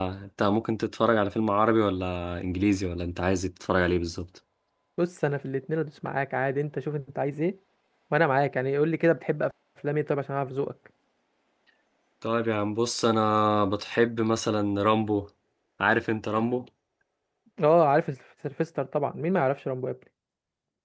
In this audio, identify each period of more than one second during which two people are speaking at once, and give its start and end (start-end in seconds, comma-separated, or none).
none